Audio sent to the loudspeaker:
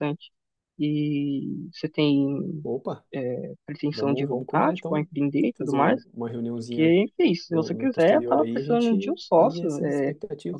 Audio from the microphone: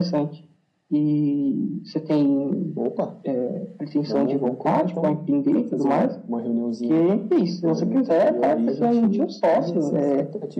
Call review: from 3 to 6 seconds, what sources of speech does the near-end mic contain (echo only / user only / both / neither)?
echo only